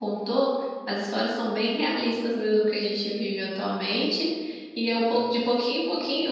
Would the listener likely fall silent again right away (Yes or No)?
Yes